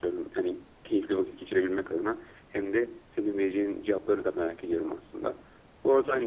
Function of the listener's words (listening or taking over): listening